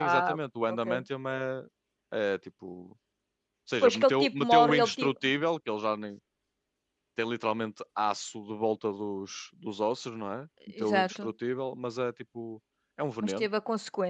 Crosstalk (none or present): present